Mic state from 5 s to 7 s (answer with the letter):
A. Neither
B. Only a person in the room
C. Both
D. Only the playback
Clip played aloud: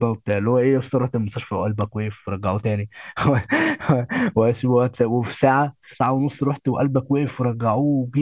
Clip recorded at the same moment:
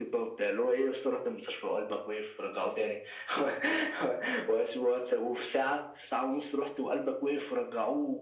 D